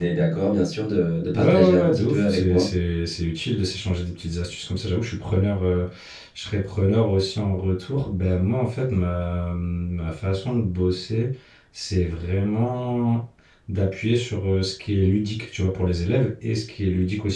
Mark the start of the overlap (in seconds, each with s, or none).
1.3 s